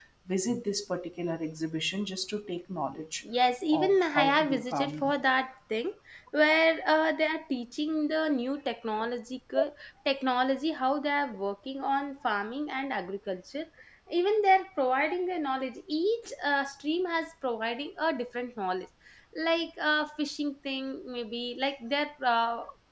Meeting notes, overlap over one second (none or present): present